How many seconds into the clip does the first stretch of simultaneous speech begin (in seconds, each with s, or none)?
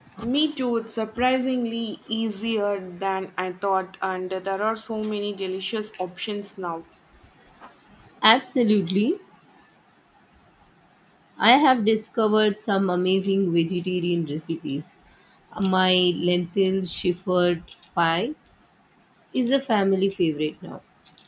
none